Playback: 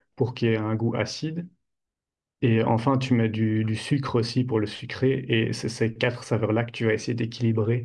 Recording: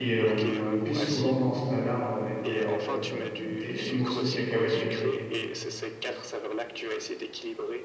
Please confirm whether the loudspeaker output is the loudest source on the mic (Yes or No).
No